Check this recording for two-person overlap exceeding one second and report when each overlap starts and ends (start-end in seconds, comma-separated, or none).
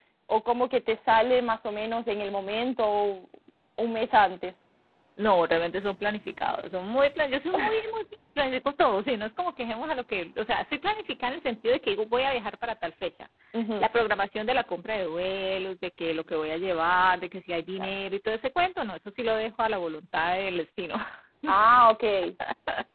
none